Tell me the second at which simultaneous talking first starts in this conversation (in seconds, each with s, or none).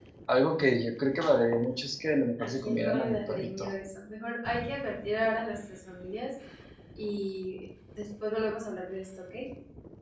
2.4 s